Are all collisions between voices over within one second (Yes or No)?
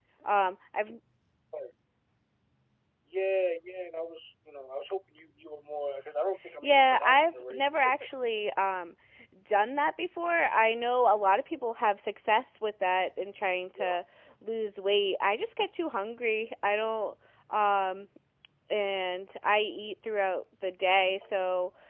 No